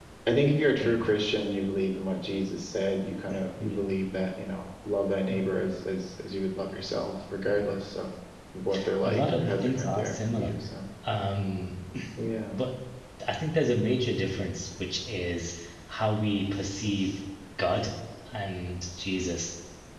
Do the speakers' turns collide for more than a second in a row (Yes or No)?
Yes